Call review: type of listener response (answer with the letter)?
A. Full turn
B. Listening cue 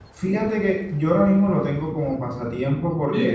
B